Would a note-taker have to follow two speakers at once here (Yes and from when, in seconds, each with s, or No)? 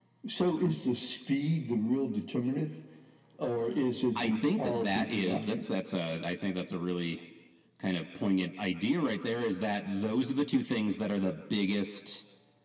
Yes, from 4.2 s